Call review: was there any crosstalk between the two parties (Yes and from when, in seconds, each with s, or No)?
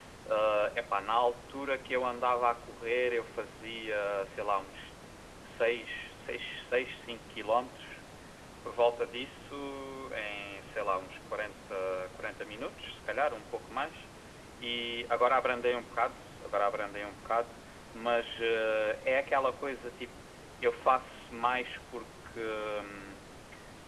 No